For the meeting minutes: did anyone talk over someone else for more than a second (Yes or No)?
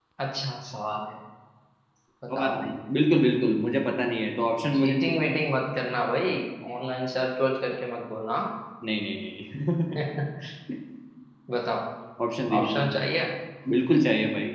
No